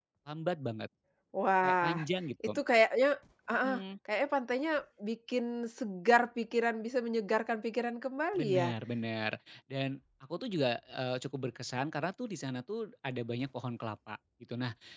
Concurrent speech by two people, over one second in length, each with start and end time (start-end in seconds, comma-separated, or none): none